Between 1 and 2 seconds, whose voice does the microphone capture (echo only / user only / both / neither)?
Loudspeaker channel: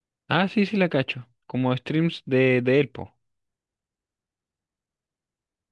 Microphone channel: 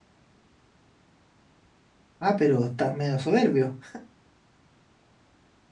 neither